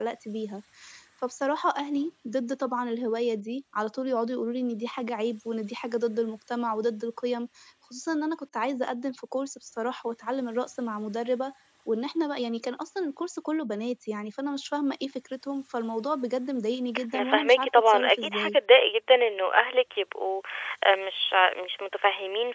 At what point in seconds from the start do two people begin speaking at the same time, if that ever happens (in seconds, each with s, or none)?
17.1 s